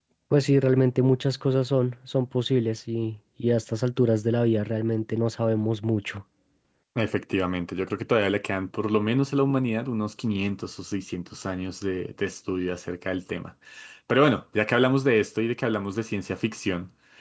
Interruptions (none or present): none